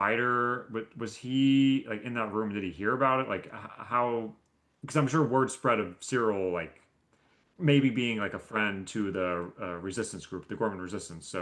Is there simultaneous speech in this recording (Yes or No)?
No